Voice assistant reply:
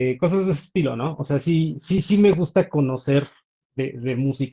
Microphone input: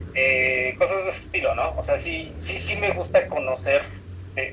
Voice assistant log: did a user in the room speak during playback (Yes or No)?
No